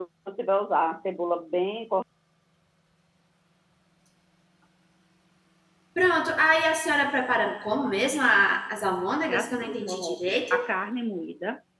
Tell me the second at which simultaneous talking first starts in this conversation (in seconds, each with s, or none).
9.3 s